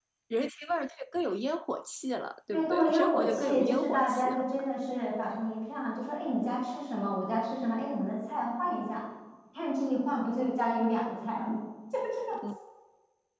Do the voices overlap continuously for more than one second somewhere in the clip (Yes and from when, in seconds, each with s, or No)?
Yes, from 2.5 s